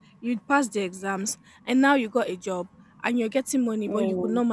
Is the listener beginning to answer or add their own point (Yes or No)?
No